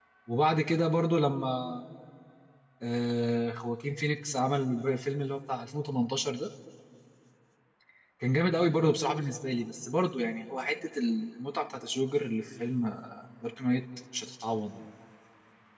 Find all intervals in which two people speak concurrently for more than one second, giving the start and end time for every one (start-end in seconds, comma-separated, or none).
none